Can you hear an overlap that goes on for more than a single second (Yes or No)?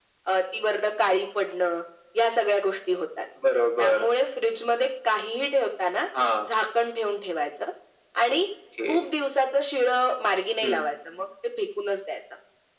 No